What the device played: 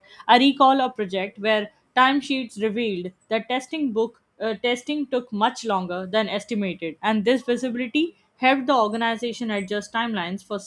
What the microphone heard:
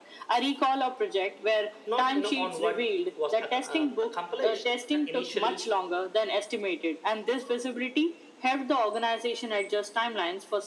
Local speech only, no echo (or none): not you know on what was ac- uh, accomplished. And initially,